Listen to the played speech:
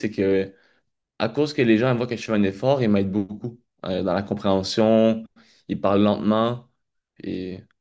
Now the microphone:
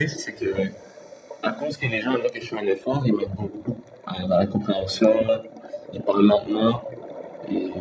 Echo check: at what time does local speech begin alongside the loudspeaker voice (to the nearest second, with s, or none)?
none